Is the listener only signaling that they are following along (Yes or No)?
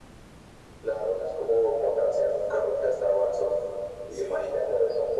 Yes